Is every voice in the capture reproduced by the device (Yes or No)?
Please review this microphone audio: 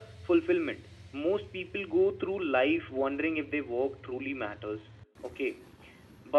Yes